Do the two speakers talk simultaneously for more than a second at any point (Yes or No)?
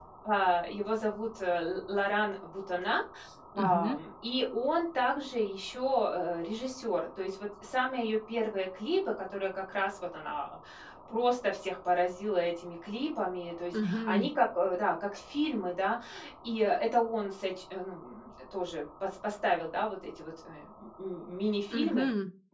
No